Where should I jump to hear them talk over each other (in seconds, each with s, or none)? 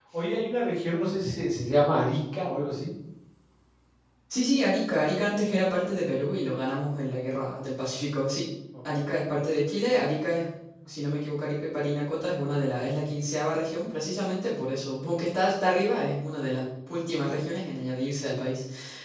none